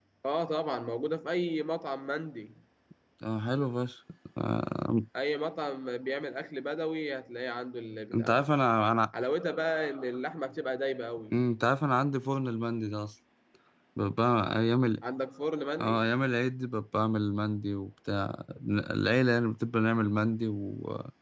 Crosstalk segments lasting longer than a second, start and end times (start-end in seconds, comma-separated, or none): none